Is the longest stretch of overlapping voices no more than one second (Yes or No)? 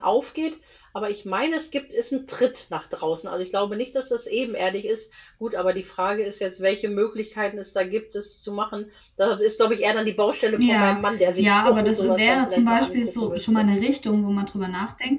No